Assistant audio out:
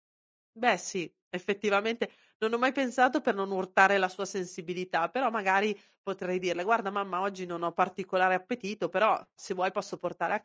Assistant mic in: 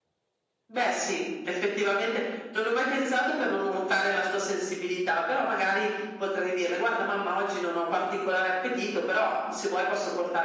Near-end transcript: none

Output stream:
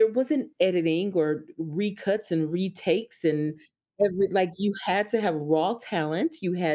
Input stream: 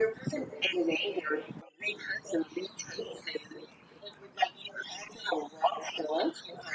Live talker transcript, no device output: none

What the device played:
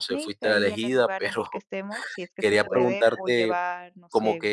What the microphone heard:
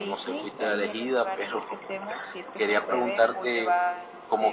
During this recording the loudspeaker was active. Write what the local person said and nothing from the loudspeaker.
none

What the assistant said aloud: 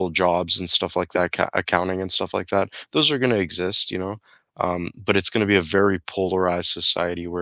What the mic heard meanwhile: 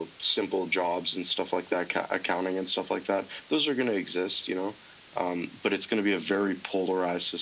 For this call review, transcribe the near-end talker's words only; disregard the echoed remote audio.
none

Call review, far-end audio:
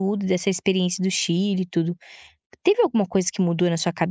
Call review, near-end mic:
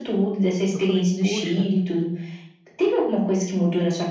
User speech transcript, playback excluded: eu falei: "Poxa,

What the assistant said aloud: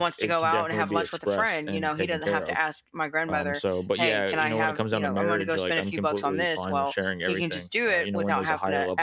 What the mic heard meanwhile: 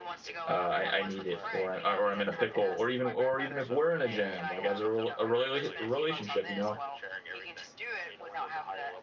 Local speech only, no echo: uh, I, I need it or I, or I'm in a pickle or even or even if we're in a jam, like as a, rel- a rela- relationship, you know,

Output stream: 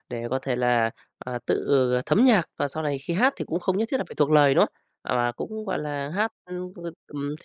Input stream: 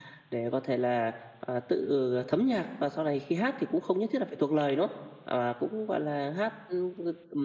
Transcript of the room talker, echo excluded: none

